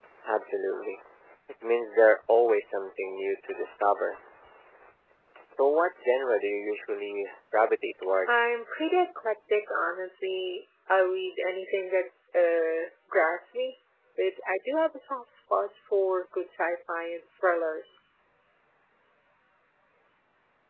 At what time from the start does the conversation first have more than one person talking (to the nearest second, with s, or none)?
none